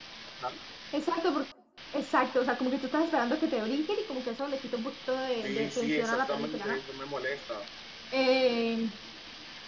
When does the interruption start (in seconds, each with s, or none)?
5.4 s